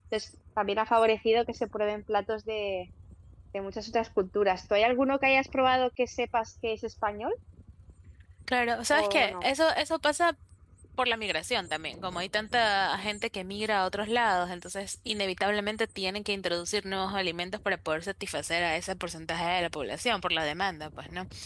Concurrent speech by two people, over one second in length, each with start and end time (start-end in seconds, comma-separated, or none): none